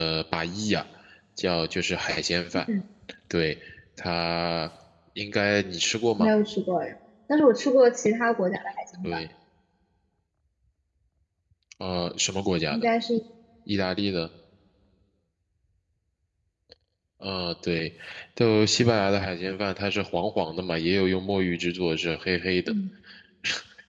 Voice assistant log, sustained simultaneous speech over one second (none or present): none